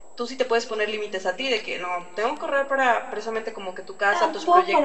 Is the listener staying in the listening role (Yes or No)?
No